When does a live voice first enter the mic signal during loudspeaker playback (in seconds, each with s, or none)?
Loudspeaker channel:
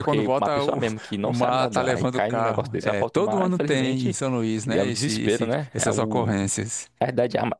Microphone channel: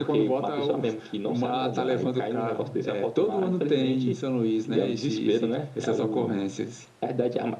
none